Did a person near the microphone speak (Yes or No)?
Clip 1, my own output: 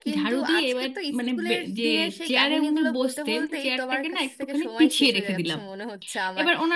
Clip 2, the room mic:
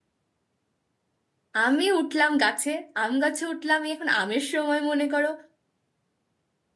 Yes